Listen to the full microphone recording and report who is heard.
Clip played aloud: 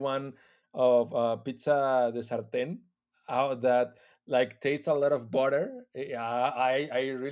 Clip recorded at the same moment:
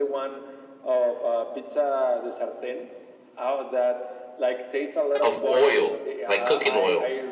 both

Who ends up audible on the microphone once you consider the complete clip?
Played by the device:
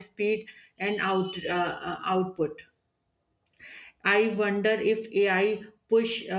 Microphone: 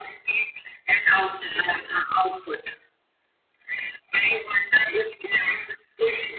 echo only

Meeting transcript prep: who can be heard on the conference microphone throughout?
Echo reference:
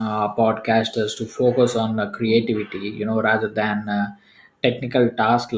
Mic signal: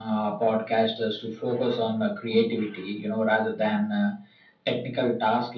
echo only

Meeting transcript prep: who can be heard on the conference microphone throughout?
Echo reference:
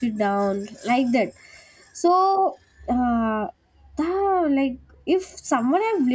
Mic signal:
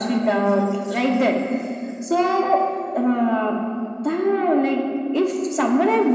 echo only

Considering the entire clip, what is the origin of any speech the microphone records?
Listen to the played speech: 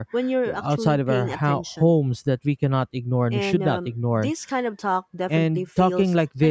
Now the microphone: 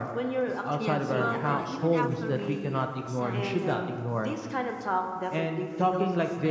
both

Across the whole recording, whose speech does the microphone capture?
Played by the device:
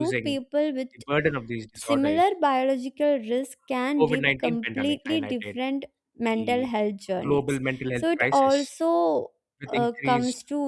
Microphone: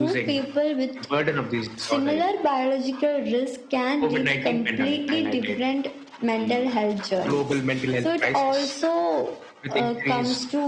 echo only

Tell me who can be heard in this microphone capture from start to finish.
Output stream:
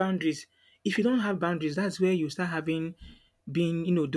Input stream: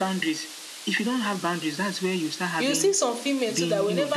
both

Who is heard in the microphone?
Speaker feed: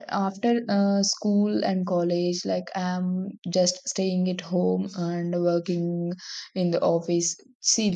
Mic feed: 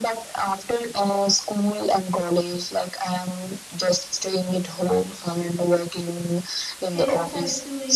both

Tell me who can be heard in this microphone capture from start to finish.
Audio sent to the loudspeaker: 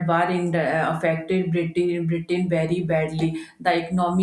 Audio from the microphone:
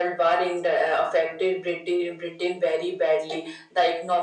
echo only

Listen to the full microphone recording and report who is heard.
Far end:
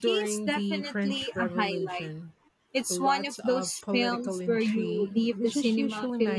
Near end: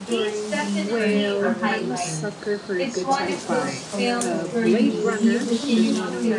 both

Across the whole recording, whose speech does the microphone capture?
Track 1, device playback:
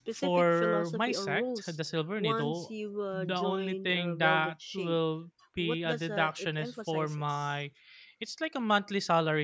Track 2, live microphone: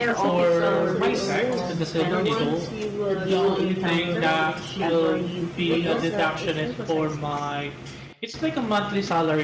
both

